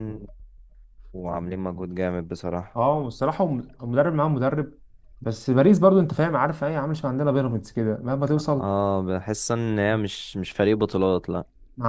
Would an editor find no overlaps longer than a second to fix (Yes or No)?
Yes